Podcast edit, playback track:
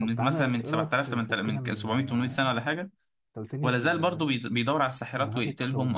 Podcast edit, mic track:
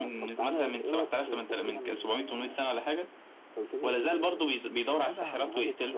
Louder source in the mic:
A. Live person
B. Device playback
B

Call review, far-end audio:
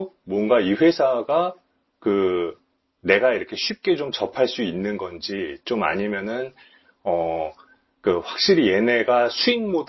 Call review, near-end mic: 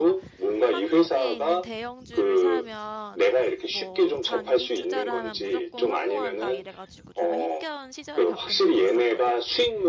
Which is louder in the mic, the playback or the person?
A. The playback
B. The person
A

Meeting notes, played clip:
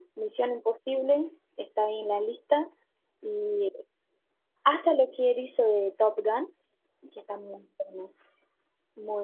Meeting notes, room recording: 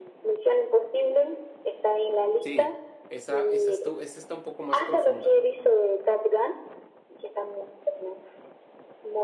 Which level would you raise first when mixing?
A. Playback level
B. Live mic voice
B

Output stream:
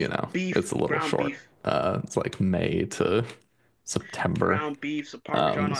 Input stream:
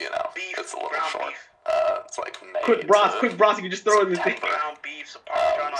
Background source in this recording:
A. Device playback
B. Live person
A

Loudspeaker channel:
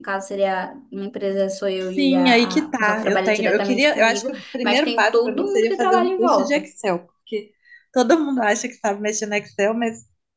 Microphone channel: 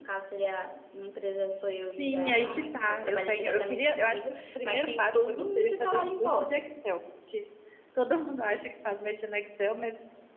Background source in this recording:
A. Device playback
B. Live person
B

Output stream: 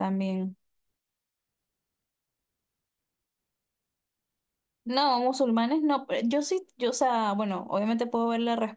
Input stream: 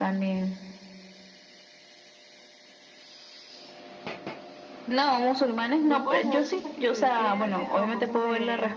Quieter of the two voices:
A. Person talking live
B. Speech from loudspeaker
A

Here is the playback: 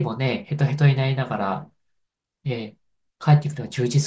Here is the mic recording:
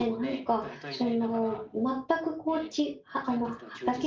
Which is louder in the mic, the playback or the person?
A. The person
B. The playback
A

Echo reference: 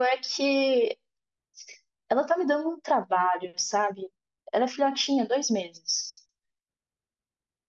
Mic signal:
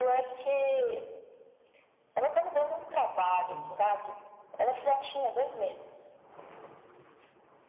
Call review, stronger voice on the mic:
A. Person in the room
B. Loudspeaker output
B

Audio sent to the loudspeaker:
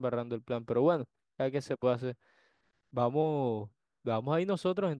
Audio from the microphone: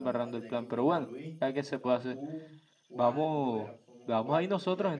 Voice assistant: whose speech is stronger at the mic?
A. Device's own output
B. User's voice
A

